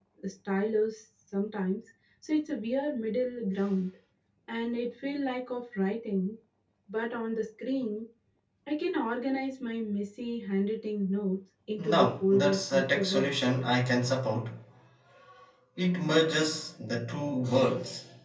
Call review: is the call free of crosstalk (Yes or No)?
No